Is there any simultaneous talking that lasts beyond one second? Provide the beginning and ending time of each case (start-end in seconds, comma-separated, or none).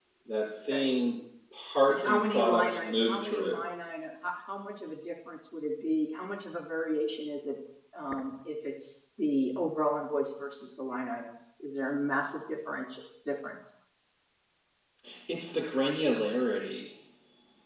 1.9-3.6